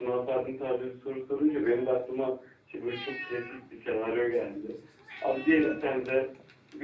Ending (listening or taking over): listening